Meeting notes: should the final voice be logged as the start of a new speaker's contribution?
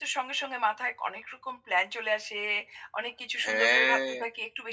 No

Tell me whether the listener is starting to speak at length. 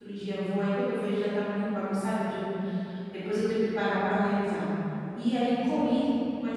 No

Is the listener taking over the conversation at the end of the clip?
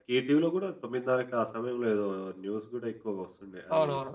Yes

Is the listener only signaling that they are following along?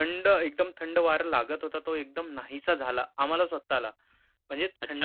No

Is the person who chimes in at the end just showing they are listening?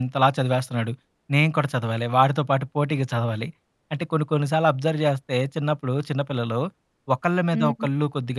Yes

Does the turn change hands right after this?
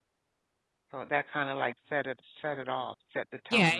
Yes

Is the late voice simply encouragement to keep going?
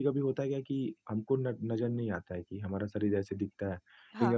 Yes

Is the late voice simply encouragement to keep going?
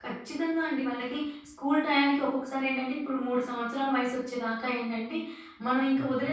Yes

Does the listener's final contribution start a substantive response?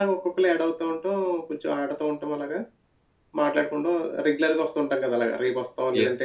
Yes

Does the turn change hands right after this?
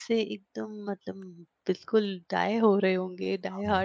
Yes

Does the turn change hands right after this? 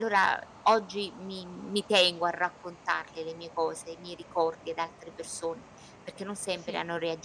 No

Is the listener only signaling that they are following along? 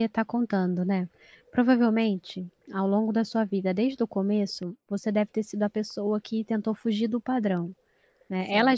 Yes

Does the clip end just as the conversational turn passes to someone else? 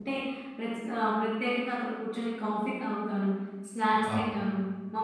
No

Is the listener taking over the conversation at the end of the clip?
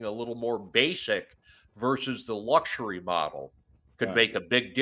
No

